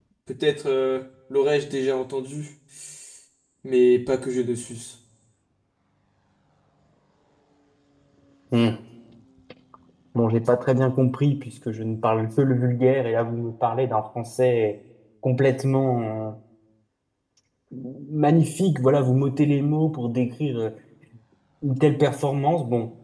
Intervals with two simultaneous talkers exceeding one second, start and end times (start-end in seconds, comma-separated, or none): none